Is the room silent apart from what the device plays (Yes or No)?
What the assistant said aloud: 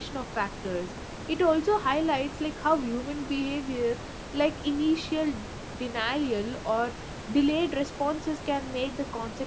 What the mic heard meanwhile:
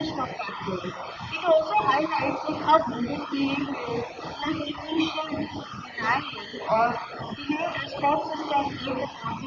Yes